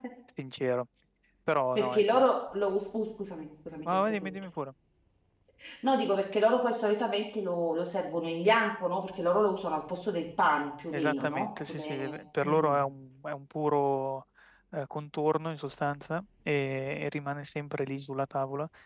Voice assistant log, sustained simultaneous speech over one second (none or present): present